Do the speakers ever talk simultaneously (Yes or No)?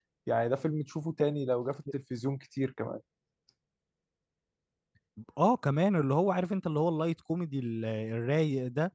No